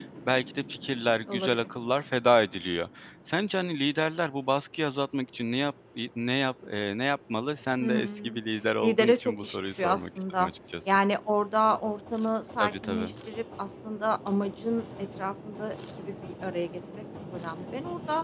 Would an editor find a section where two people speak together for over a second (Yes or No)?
Yes